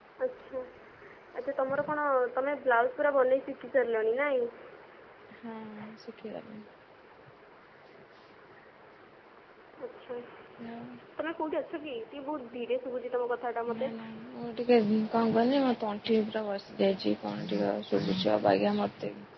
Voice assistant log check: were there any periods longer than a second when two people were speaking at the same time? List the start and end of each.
none

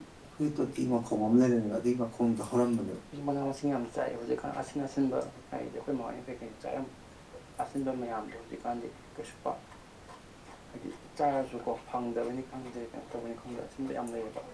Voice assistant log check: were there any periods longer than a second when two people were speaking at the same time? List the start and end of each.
none

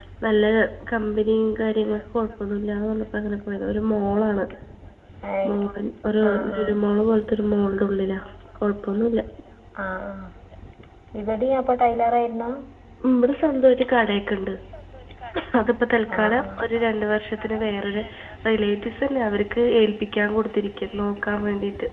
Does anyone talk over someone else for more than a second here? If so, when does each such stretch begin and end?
none

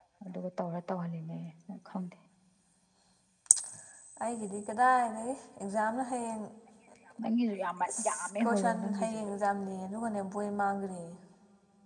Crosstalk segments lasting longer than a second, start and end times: 8.0-9.3

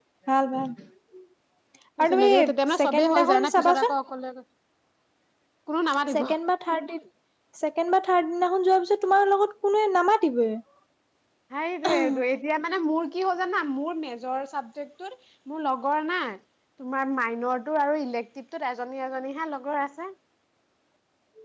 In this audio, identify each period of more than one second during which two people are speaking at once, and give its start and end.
2.7-3.9

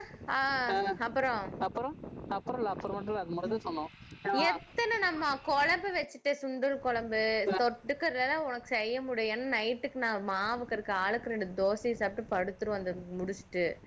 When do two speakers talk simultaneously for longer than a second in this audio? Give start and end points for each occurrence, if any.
none

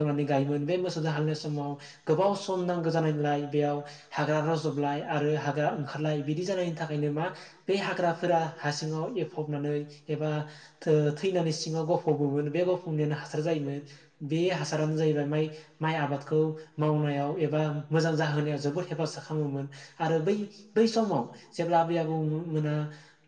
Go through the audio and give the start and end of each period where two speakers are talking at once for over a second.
none

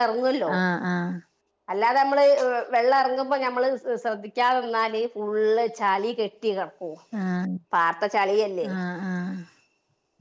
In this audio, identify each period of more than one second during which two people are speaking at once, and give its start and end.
none

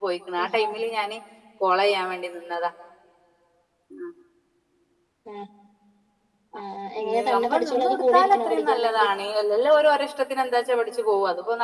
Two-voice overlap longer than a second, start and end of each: 7.0-9.1

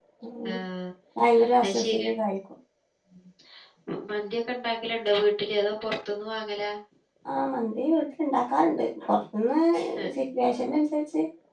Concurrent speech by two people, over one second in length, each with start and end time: none

